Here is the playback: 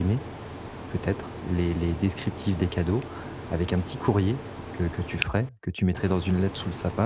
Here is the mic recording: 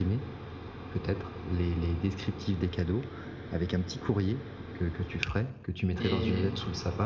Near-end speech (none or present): present